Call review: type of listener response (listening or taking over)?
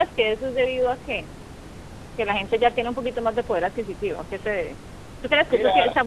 listening